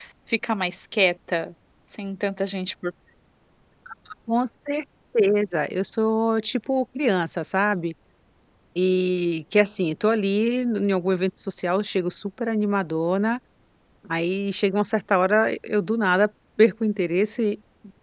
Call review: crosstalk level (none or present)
none